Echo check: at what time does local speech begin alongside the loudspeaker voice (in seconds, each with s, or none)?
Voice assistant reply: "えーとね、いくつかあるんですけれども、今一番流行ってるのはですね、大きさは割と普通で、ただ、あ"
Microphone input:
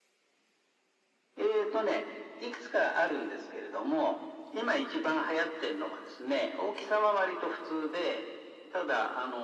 none